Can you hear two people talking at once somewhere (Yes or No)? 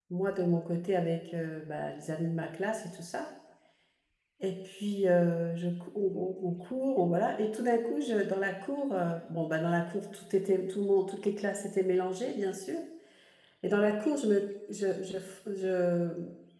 No